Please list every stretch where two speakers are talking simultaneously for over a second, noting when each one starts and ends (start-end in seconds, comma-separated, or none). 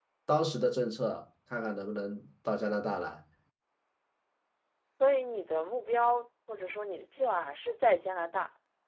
none